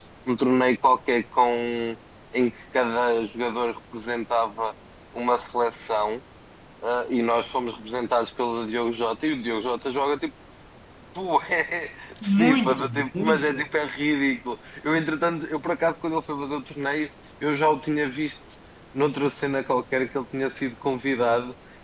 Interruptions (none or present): present